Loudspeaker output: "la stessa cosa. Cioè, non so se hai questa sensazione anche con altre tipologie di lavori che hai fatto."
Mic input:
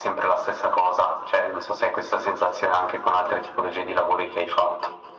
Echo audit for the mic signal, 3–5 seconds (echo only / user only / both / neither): echo only